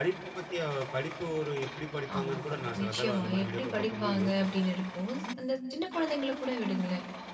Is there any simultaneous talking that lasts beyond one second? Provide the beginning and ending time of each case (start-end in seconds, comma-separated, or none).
2.2-4.7